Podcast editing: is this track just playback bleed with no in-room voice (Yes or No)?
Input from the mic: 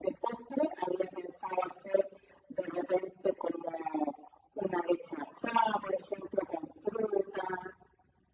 Yes